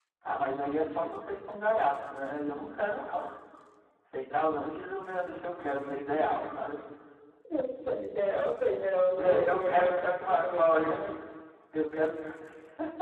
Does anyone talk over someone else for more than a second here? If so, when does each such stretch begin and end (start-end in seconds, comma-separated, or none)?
9.2-10.9